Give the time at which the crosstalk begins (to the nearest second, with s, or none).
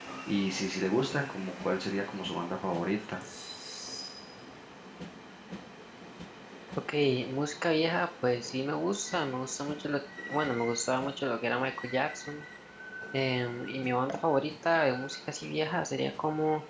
none